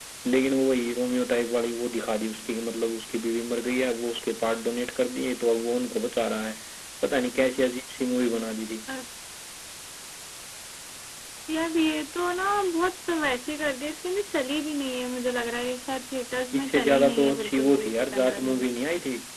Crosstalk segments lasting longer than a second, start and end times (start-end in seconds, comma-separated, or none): 16.5-18.6